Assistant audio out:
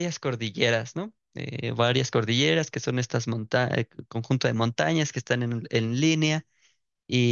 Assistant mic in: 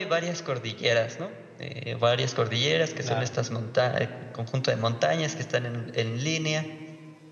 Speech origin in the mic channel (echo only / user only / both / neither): both